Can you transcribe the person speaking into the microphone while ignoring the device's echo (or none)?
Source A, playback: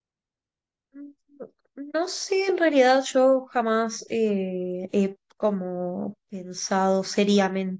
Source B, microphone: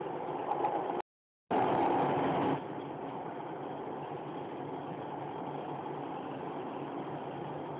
none